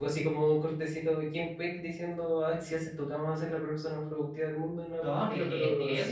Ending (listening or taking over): taking over